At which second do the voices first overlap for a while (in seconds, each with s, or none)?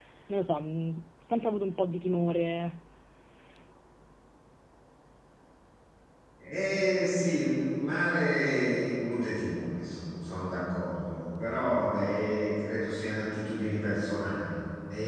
none